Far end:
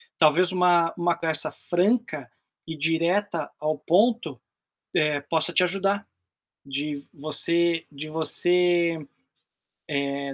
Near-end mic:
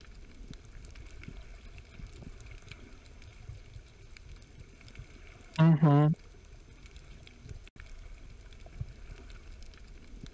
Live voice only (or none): Uhum.